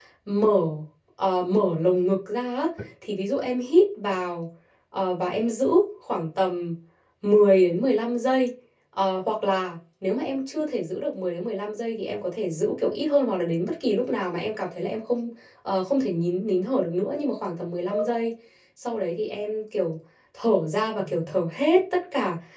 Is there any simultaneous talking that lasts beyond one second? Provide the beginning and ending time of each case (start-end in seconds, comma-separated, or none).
none